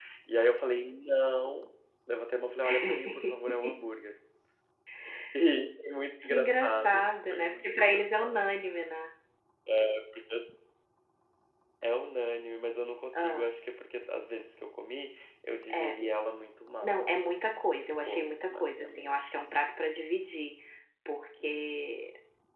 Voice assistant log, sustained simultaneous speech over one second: present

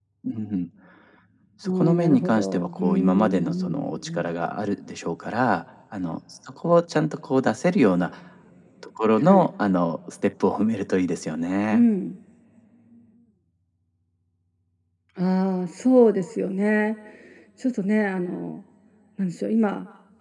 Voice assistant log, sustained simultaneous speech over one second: present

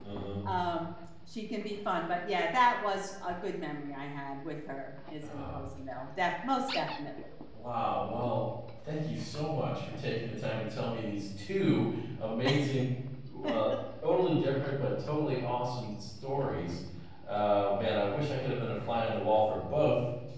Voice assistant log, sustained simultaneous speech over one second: none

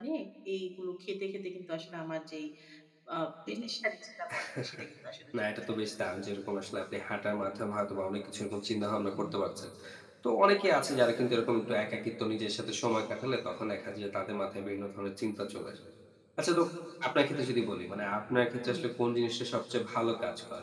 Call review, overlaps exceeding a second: none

